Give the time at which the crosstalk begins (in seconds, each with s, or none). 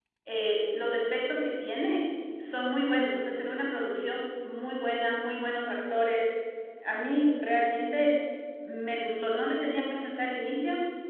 none